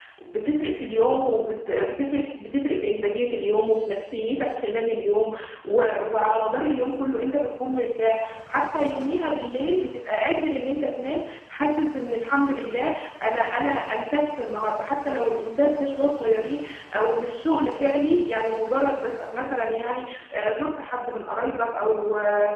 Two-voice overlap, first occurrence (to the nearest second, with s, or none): none